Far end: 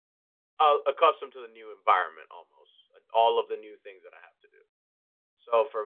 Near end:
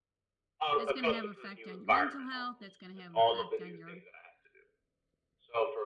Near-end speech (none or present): present